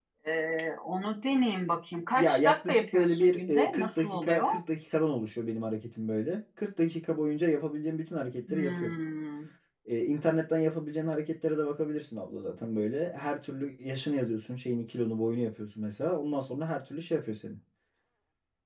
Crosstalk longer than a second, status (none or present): present